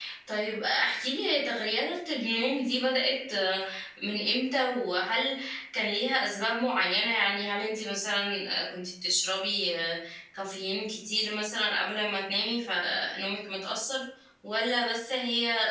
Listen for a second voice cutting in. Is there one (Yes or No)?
No